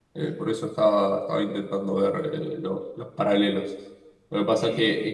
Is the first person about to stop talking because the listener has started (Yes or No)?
No